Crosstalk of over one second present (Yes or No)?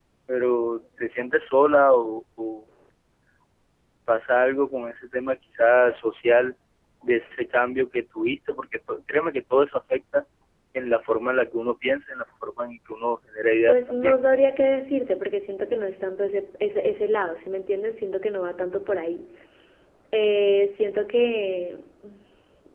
No